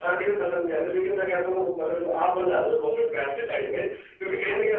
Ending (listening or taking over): listening